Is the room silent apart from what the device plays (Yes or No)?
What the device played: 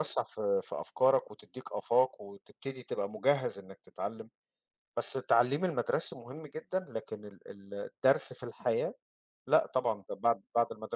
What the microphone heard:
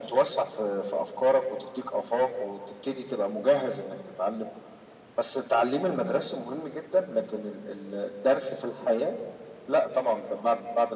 Yes